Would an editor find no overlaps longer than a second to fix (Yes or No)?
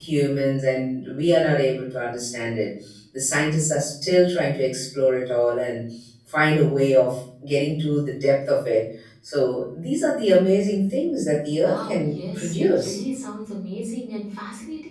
No